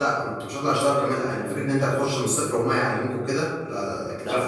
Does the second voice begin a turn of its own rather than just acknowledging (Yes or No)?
No